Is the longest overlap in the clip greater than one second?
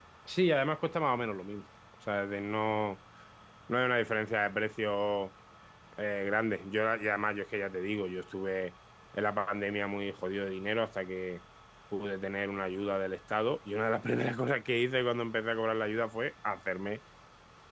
No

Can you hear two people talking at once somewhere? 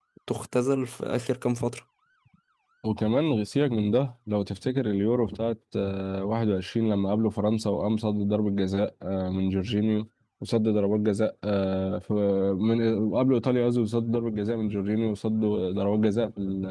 No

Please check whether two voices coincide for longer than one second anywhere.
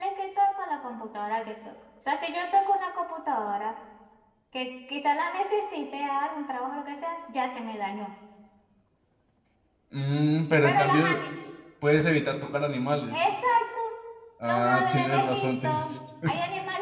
Yes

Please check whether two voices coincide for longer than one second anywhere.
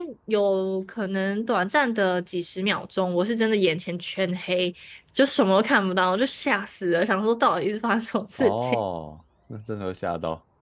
No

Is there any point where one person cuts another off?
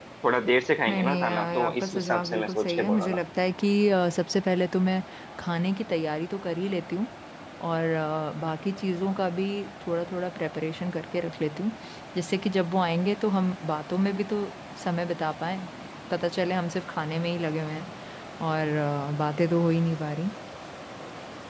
Yes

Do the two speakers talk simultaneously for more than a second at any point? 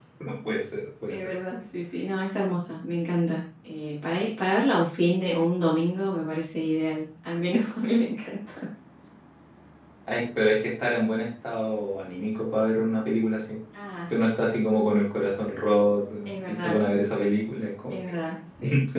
No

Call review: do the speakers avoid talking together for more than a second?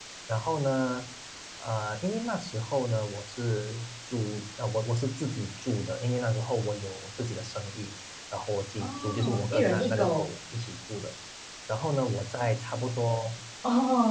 No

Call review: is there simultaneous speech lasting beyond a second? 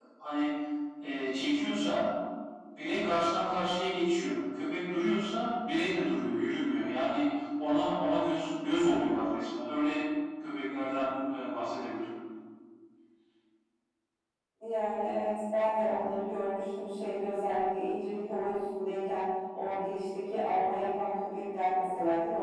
No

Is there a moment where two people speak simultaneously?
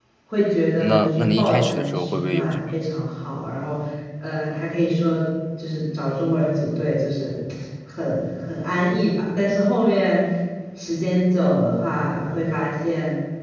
Yes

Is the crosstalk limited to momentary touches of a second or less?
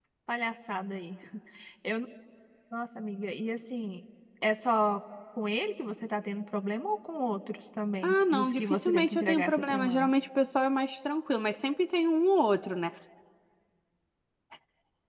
No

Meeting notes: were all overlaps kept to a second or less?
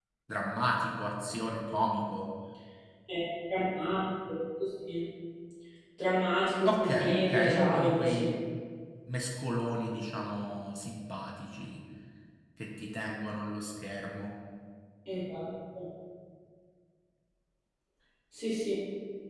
No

